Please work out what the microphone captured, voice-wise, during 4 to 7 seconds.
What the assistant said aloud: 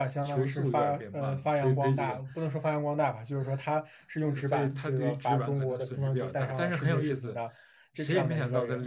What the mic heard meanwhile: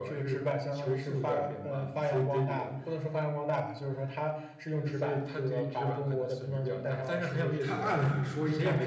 echo only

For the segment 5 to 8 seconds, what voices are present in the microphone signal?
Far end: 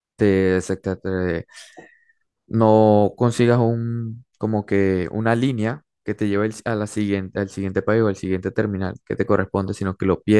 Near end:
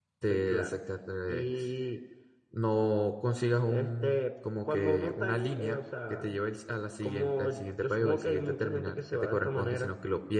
both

